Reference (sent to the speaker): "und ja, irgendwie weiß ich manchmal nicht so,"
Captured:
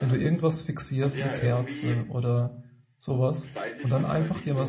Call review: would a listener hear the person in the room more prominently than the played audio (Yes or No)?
Yes